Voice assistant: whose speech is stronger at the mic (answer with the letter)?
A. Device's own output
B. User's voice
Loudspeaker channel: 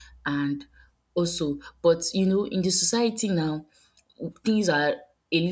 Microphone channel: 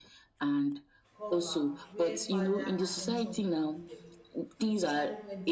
A